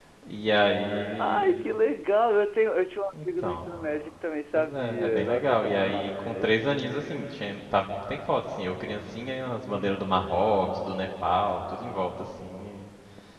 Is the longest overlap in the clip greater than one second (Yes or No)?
Yes